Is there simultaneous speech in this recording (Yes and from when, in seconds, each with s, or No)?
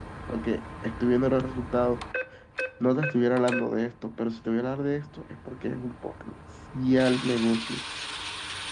No